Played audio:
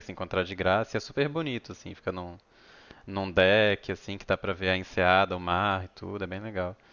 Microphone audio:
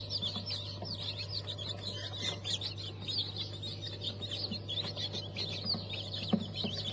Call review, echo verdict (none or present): none